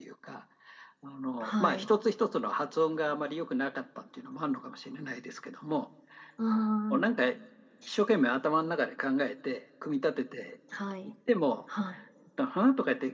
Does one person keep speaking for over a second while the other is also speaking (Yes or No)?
No